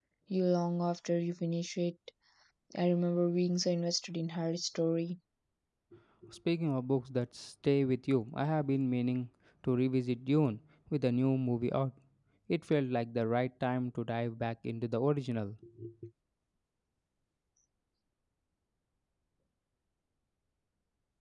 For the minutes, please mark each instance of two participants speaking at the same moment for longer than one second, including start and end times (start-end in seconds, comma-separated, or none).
none